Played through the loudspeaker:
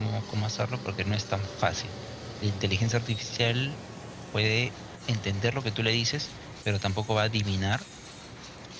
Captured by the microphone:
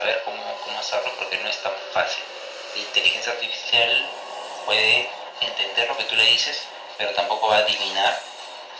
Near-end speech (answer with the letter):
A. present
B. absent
B